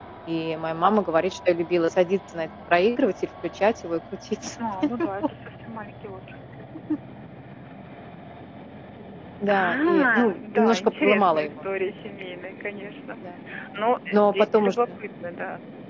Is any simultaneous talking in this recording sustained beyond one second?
Yes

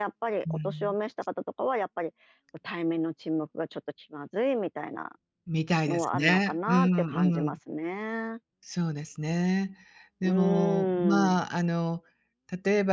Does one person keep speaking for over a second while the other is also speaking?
Yes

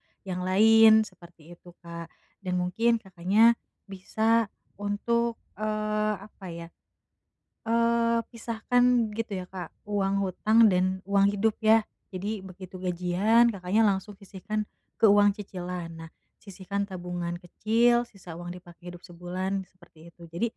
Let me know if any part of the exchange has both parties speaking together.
No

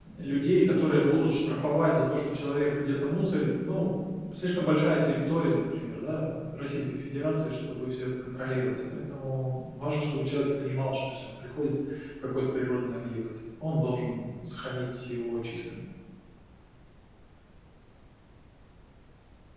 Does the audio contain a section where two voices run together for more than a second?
No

